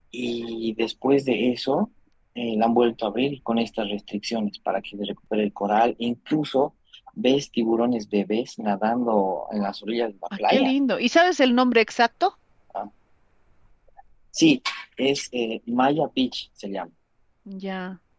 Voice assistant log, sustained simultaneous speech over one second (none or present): none